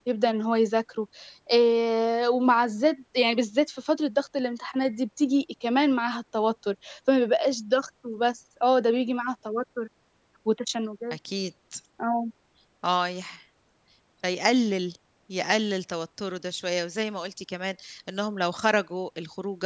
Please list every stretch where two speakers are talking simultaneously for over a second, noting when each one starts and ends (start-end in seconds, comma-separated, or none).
none